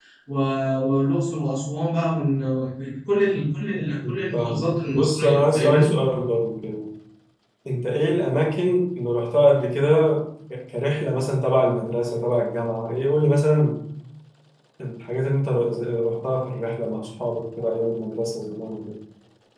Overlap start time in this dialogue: 4.3 s

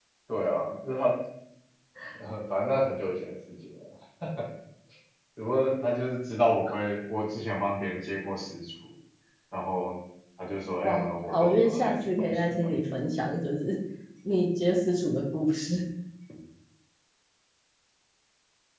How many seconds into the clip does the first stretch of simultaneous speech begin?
10.8 s

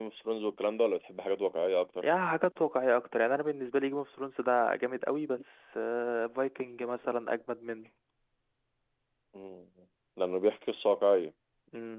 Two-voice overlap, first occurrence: none

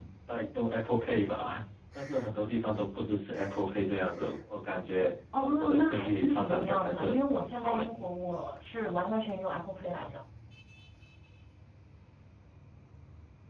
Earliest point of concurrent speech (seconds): 5.3 s

